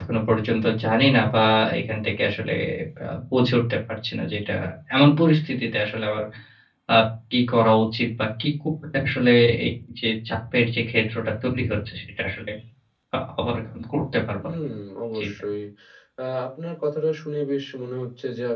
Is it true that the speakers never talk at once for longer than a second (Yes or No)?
Yes